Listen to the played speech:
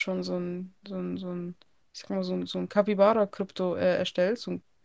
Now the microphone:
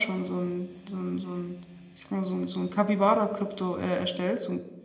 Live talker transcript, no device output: none

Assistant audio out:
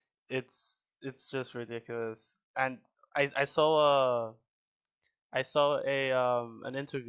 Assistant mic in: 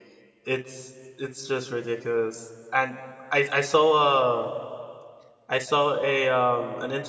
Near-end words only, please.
none

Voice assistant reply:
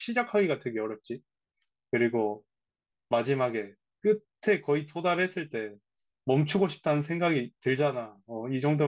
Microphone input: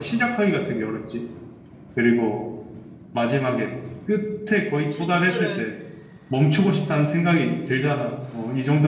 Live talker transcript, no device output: 주짓수를

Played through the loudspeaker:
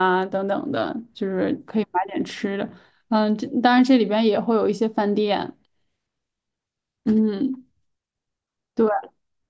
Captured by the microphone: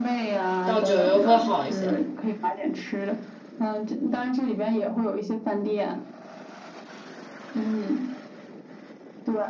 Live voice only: 到九月会好一些？

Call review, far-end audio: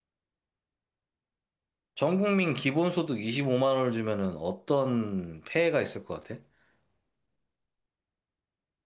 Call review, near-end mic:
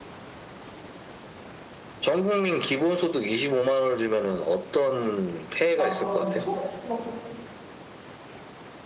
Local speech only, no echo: 막 그런 소득 막

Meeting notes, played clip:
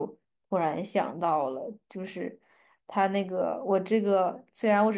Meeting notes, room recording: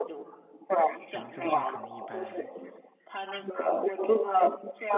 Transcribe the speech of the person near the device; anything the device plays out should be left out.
我们周税可能一般

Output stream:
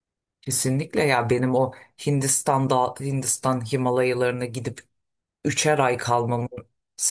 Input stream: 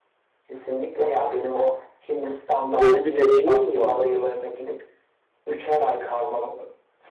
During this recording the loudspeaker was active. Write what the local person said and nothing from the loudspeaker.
Böyle bir deneyimin mi vardı?

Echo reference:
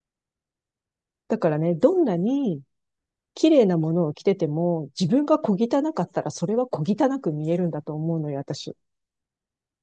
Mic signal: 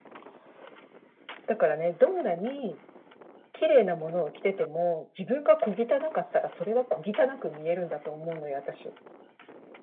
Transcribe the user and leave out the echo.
none

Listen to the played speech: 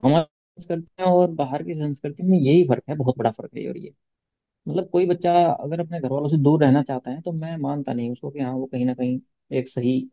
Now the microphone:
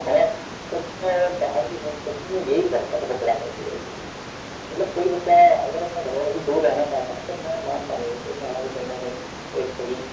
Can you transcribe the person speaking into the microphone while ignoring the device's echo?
none

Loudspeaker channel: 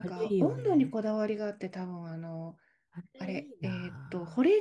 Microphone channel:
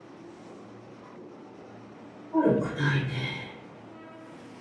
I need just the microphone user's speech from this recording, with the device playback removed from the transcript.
悪くないね。

